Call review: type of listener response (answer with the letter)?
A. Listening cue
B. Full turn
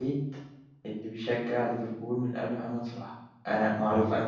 A